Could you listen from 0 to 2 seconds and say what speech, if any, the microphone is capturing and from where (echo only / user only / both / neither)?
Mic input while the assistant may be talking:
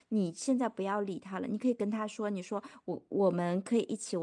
user only